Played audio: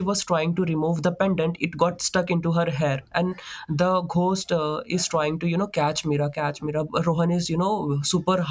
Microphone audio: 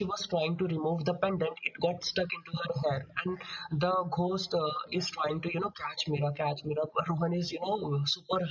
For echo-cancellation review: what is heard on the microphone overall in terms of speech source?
echo only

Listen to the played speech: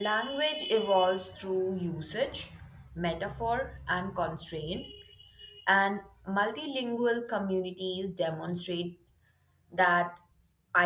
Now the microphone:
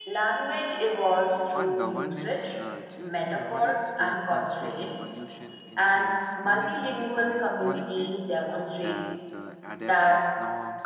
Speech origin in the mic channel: both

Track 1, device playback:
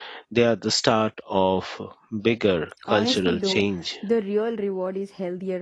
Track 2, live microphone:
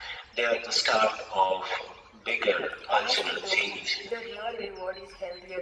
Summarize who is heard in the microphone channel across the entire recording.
echo only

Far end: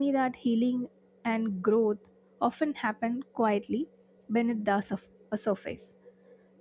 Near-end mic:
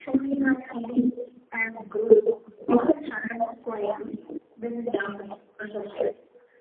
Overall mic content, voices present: echo only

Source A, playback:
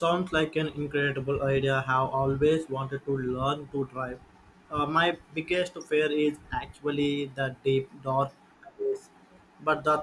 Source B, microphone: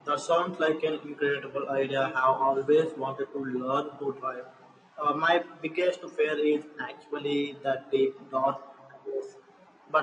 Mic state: both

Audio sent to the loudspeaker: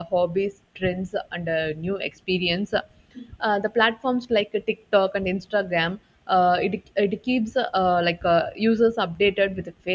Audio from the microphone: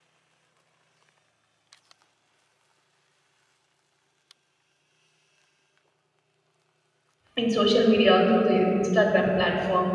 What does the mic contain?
user only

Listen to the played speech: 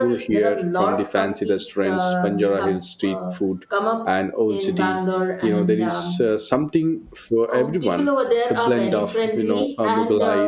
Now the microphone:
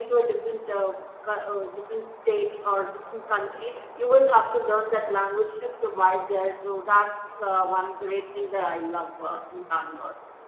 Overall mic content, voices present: user only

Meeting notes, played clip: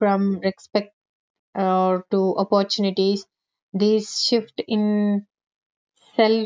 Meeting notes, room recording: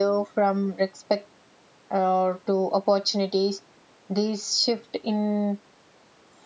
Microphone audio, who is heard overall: echo only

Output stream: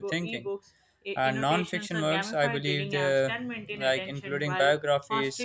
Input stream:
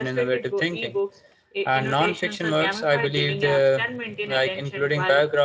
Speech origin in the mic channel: echo only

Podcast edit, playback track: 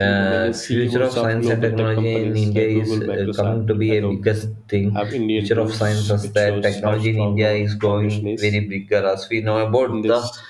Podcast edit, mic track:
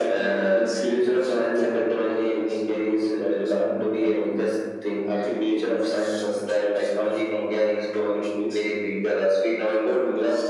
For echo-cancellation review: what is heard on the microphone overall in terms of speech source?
echo only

